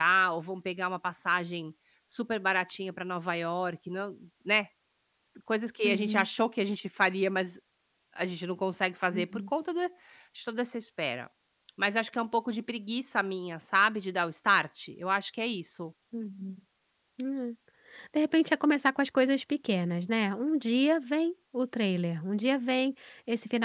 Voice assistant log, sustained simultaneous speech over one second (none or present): none